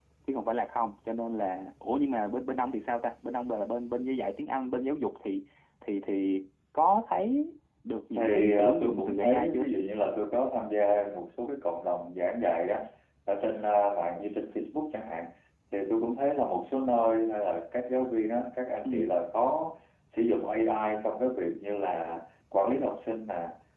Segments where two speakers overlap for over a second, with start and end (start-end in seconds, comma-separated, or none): 8.2-9.6